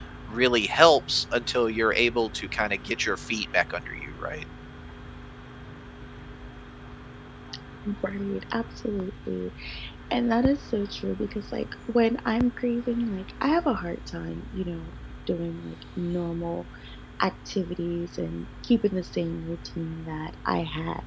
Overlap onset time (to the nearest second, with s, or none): none